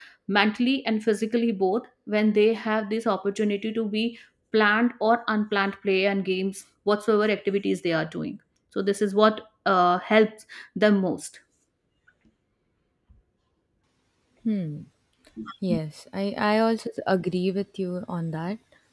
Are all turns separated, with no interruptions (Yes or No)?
Yes